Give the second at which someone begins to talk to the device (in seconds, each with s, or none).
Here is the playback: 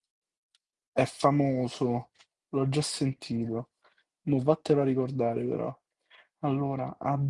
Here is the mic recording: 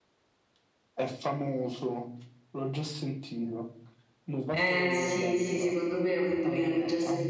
4.5 s